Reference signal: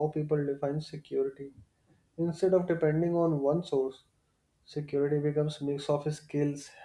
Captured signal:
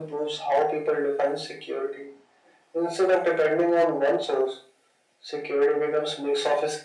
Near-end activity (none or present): none